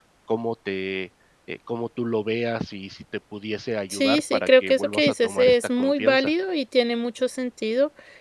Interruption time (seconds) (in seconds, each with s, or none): 3.9 s